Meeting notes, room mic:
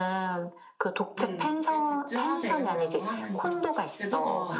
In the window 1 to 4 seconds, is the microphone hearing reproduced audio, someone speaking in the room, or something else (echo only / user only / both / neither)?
both